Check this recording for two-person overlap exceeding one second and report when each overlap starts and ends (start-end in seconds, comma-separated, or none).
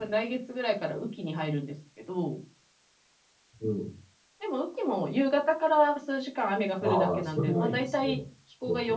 6.8-8.1